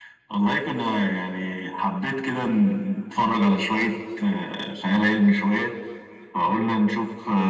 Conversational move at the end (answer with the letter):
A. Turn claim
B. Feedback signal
B